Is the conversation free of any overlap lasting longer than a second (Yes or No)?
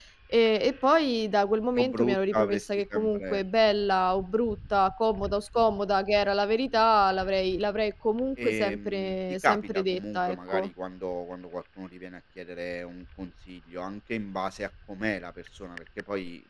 No